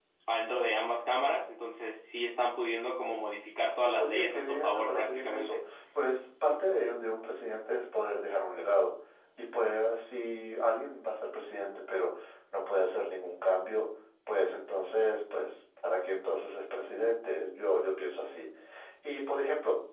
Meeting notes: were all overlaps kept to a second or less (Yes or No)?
No